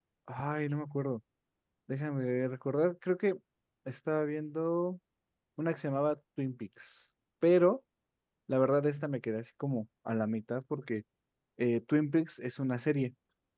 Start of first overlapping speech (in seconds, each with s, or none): none